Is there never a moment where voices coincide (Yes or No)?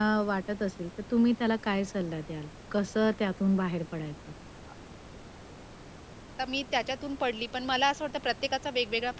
Yes